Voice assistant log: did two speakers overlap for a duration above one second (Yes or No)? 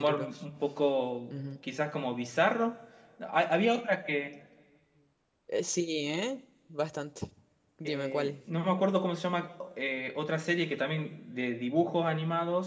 No